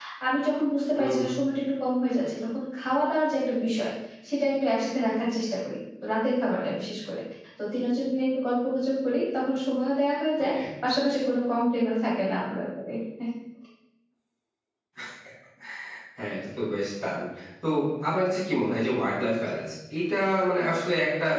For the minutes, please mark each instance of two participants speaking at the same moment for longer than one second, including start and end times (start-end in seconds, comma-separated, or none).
none